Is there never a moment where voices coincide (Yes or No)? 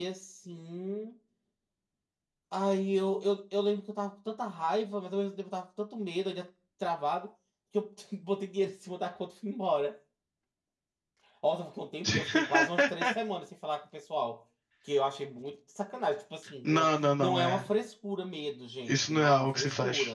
No